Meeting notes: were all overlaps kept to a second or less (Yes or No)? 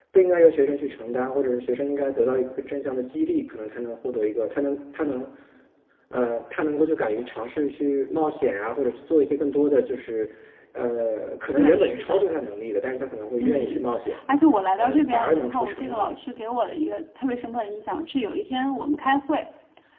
No